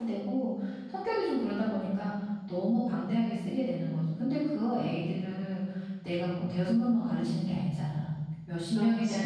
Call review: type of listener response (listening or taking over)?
listening